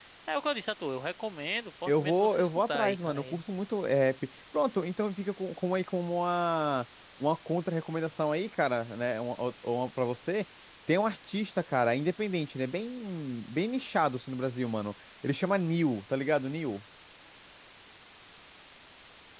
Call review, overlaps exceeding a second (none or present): present